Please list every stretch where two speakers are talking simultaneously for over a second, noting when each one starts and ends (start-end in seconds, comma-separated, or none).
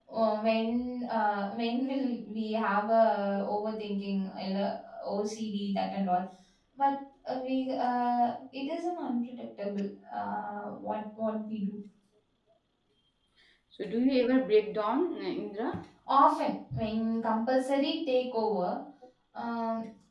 none